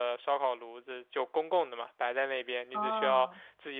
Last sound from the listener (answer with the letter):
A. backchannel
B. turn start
A